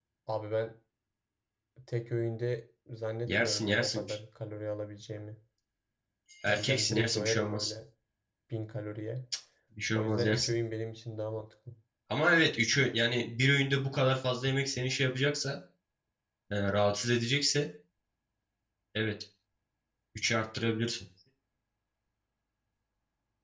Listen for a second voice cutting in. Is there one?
Yes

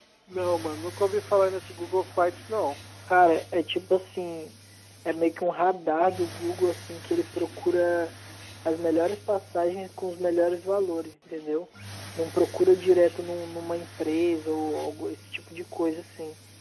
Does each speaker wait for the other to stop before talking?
Yes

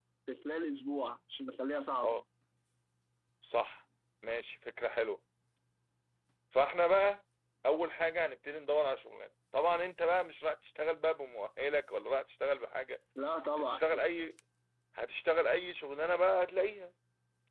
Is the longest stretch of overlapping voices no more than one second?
Yes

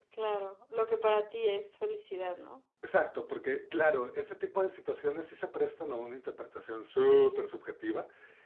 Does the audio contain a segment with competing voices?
No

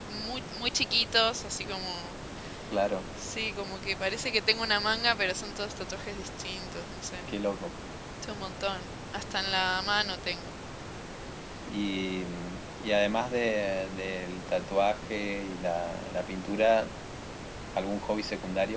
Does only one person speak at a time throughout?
Yes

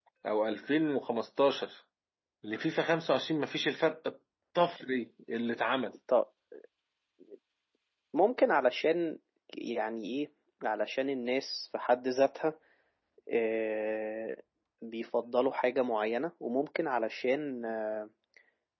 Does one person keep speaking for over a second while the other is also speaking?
No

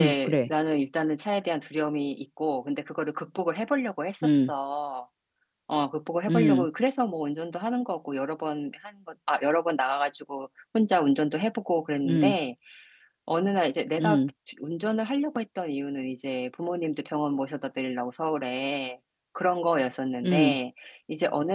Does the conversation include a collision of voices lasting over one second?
No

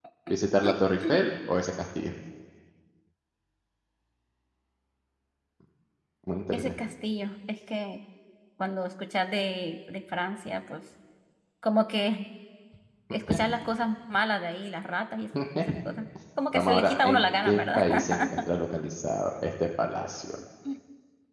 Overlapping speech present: Yes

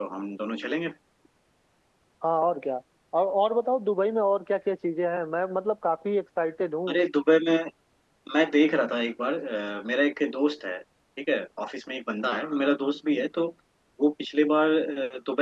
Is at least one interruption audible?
No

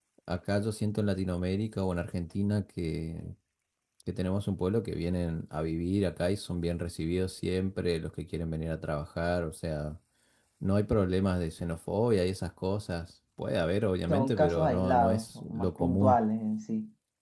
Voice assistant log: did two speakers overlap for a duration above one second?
Yes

